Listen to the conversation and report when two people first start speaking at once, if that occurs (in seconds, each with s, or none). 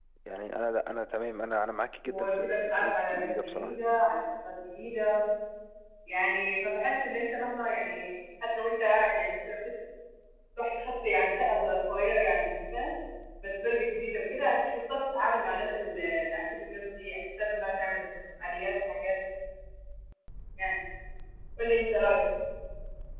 2.0 s